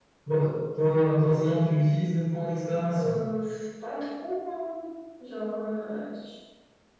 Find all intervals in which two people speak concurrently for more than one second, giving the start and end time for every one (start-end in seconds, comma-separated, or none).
none